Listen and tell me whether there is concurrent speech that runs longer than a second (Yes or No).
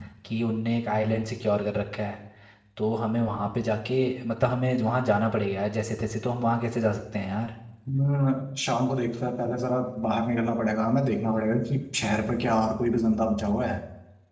No